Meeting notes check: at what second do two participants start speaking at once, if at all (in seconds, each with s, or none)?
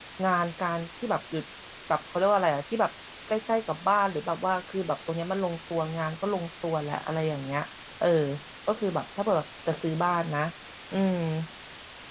none